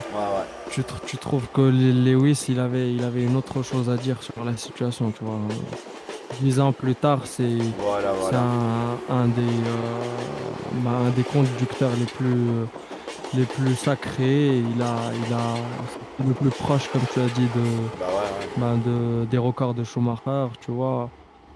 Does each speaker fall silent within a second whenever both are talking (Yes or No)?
Yes